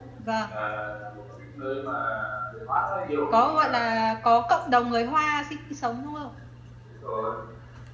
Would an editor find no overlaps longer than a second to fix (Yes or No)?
Yes